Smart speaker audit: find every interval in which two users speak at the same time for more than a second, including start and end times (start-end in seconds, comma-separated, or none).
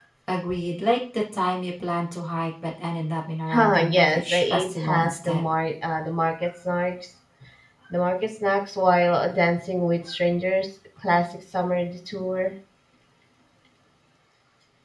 3.5-5.5